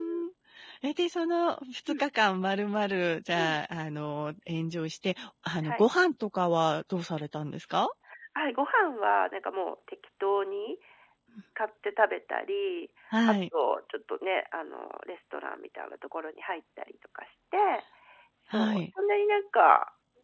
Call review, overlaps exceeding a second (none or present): none